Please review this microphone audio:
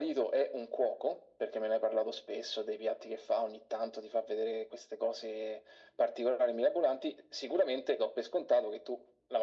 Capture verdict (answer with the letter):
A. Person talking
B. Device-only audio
B